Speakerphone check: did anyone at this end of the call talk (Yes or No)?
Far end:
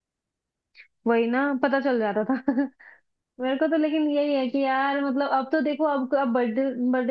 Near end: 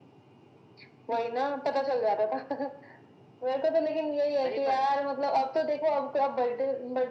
Yes